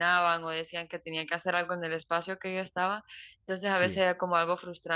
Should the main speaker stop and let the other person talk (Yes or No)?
No